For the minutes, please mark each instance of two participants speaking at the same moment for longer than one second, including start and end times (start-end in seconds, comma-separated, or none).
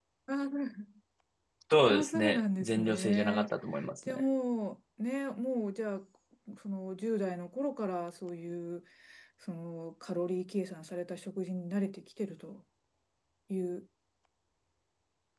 1.9-3.5